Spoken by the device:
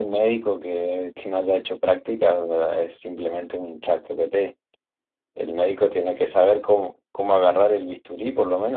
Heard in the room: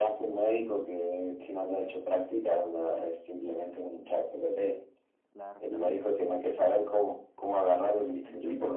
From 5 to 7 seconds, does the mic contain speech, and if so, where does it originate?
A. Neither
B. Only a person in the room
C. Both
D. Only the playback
C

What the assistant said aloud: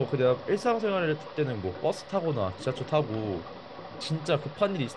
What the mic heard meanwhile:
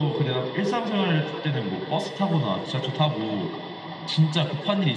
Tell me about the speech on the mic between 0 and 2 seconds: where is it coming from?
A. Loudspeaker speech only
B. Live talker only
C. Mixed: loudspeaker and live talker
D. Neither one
A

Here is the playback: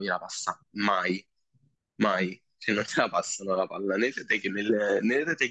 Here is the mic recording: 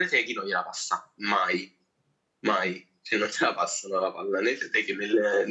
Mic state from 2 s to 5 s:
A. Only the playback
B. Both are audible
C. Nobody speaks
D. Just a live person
A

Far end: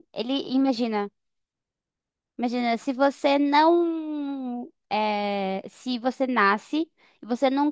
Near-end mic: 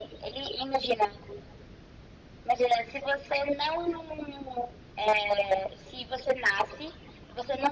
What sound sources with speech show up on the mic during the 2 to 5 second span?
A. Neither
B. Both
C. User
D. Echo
D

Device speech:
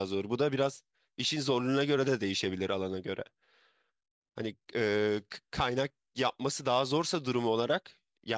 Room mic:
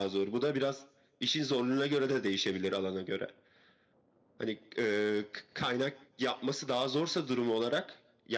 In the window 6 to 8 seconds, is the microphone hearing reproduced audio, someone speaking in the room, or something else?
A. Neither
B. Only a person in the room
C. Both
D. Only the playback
D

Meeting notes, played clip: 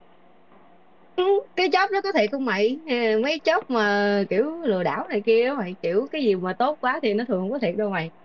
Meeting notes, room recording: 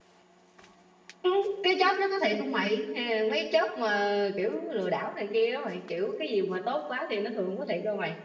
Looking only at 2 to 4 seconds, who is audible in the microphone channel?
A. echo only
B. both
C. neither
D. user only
A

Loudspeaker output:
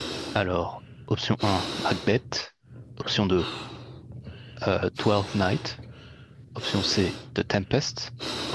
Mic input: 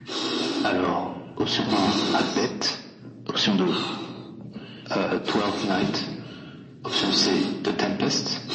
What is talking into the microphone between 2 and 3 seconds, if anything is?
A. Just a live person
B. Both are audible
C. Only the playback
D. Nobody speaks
B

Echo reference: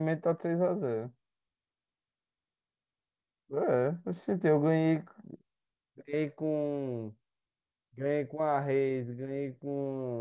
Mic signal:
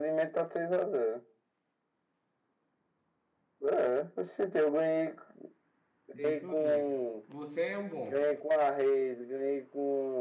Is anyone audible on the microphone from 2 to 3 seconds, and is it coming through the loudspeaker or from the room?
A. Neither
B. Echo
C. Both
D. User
A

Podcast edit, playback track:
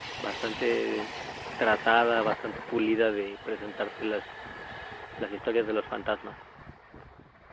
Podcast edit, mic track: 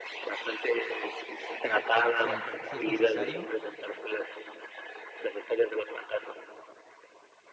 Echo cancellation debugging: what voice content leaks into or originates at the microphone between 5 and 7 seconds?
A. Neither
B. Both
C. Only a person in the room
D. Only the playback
D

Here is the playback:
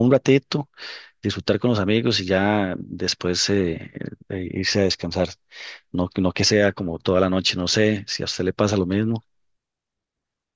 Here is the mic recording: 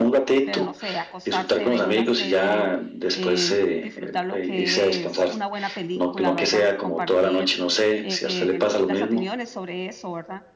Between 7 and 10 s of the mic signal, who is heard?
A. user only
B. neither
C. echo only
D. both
D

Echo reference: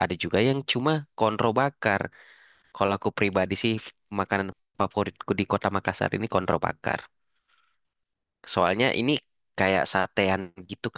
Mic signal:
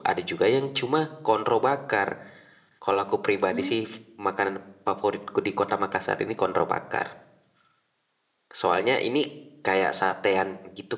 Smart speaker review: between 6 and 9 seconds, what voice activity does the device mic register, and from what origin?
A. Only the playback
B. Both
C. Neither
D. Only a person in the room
A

